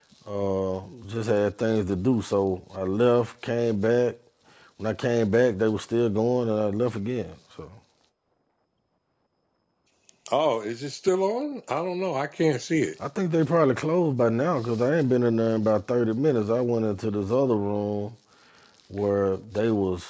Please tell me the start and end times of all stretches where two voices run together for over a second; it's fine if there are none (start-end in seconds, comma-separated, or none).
none